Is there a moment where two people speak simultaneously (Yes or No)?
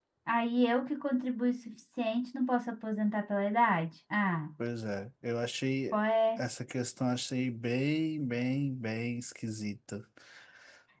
No